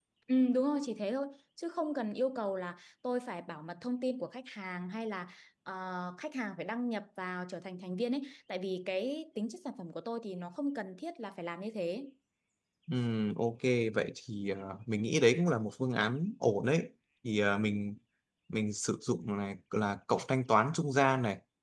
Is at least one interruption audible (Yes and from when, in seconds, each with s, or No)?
No